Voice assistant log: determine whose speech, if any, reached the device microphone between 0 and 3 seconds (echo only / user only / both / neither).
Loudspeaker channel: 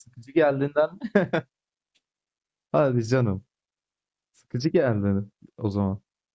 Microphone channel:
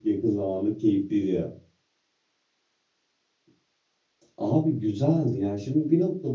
user only